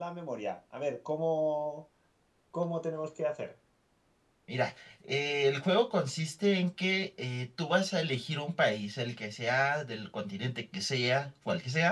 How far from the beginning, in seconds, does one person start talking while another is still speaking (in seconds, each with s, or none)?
none